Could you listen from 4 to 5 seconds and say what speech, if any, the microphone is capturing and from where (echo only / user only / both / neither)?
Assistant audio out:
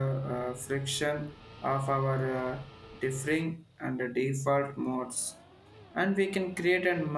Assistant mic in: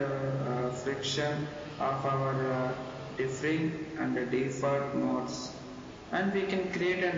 echo only